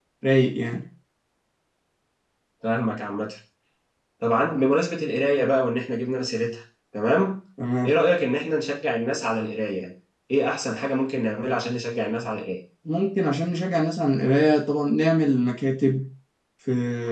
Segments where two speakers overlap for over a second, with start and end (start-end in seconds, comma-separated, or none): none